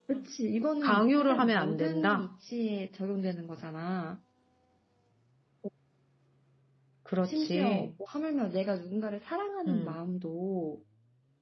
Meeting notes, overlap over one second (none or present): present